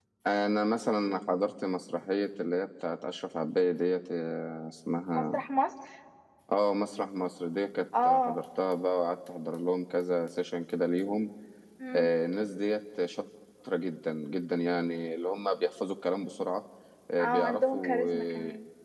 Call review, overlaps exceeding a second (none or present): present